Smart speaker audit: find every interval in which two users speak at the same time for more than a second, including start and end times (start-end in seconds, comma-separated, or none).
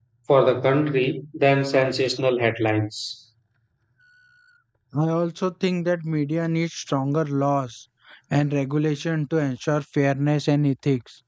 none